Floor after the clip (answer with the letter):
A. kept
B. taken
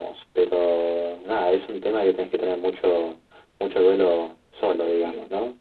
B